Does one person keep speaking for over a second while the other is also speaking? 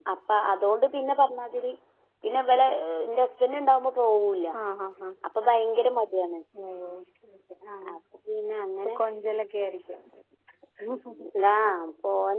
No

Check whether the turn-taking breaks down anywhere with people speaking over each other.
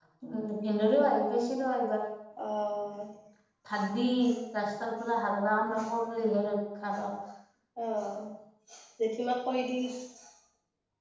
No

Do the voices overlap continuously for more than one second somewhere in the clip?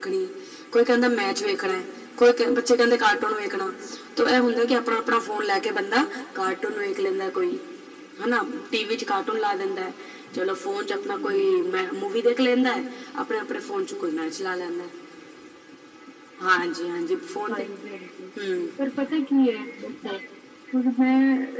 No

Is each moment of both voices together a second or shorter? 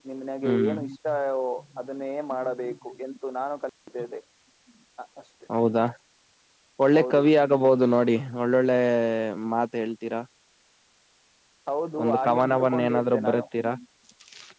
No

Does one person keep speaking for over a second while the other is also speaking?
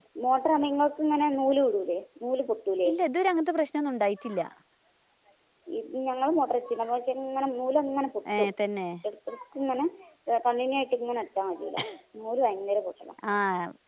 No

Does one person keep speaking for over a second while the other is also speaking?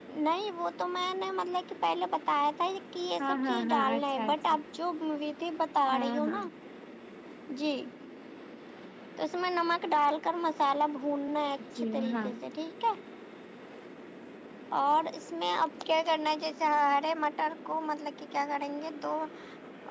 Yes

